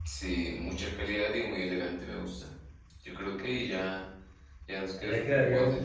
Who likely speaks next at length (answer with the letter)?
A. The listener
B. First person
A